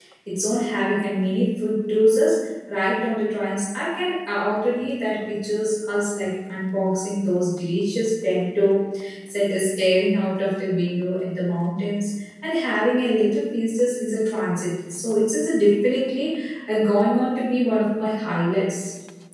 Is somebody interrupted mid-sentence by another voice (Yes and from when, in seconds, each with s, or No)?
No